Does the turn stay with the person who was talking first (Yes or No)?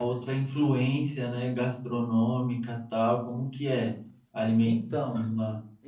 No